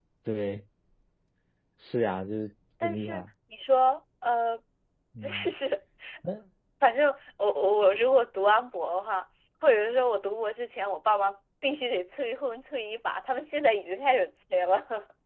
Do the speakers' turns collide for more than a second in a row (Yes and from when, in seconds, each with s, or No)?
No